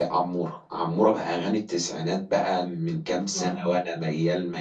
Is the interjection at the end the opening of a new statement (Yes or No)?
No